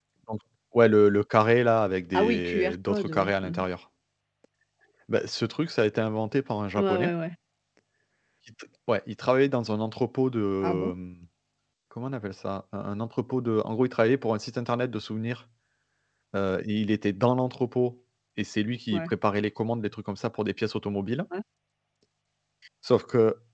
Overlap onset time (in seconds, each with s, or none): 2.1 s